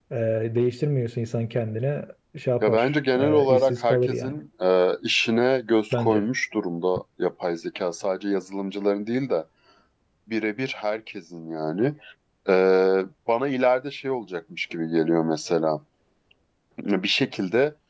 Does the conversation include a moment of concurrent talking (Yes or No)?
Yes